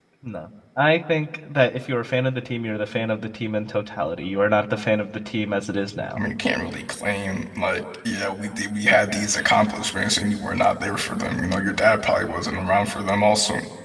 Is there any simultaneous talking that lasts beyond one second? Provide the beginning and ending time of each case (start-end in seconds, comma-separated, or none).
none